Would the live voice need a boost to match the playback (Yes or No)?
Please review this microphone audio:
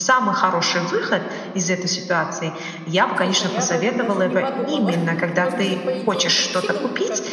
Yes